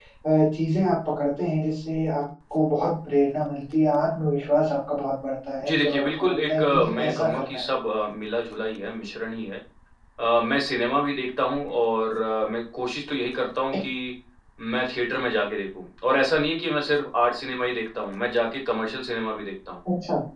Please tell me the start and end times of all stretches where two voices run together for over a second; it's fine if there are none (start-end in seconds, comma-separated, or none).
5.6-7.6